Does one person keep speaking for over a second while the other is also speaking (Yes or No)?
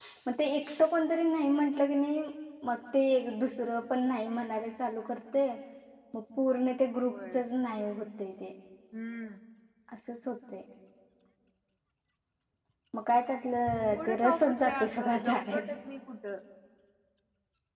Yes